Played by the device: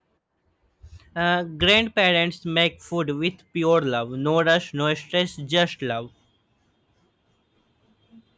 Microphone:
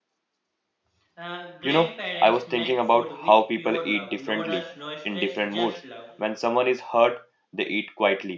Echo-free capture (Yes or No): No